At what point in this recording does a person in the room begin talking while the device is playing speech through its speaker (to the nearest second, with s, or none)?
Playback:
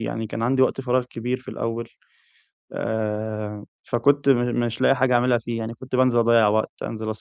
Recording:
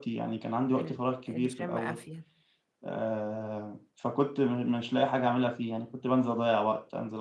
1 s